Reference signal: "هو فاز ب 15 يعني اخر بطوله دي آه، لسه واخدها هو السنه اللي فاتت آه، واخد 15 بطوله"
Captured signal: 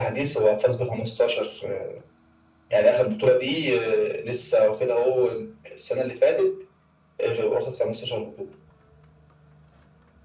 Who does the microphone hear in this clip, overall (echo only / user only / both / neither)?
echo only